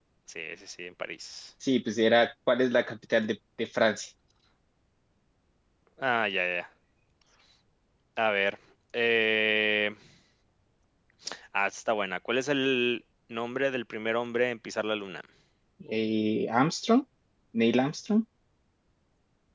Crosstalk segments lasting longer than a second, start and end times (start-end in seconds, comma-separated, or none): none